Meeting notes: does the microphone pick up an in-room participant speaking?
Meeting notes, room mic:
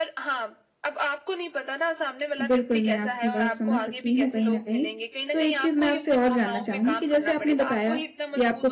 Yes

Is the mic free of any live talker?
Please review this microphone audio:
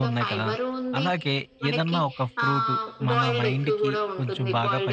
No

